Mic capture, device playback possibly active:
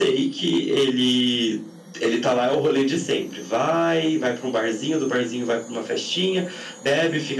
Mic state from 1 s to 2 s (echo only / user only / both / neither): echo only